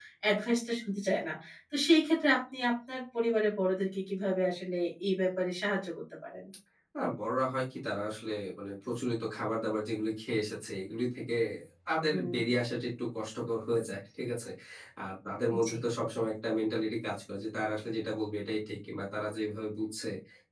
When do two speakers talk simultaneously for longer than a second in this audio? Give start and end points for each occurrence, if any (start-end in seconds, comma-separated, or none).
none